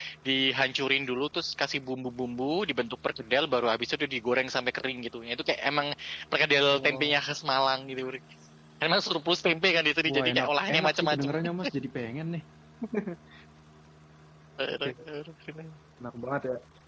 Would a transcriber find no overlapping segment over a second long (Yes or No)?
No